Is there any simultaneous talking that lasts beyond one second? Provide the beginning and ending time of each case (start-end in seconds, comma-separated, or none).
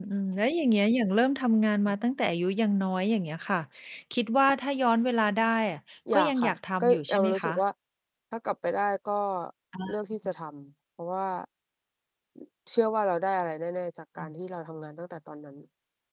6.1-7.6